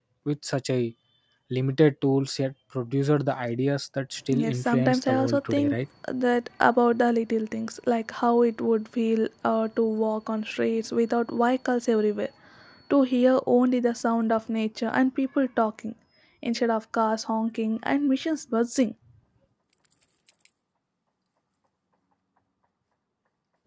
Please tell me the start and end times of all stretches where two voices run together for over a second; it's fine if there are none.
4.3-5.7

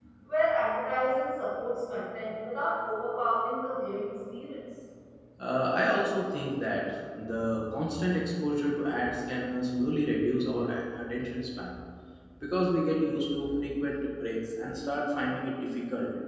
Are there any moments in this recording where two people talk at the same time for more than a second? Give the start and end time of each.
none

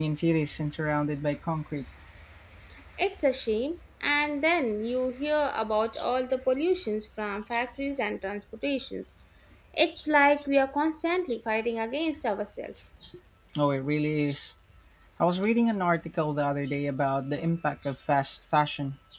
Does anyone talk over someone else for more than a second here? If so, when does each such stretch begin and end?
none

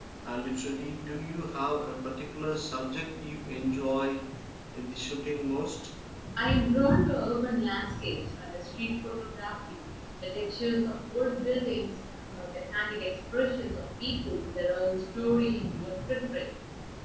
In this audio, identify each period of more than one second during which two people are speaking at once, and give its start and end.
none

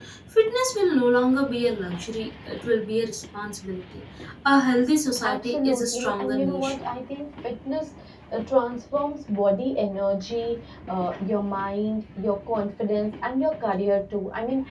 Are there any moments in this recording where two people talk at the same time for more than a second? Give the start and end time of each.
5.2-6.7

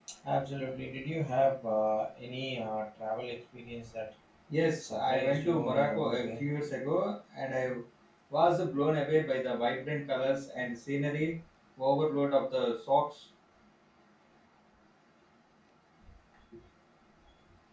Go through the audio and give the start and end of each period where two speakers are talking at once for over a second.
4.8-6.4

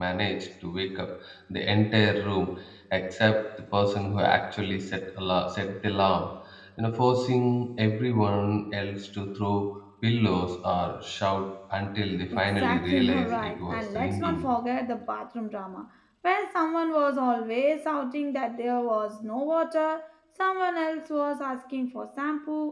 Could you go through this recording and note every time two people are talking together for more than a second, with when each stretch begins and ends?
12.3-14.5

